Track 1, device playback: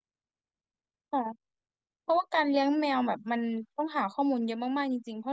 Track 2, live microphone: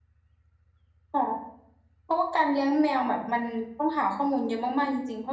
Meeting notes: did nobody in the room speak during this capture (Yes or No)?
Yes